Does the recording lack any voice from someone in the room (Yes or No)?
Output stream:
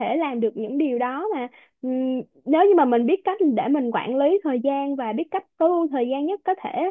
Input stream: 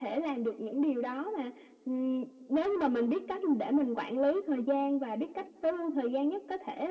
Yes